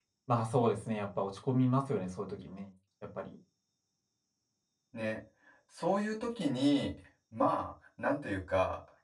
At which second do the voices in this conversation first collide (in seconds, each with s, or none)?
none